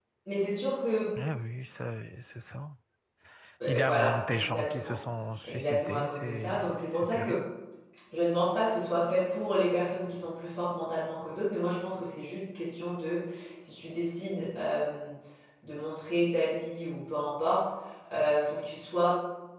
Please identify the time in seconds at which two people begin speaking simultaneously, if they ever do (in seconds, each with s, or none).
3.7 s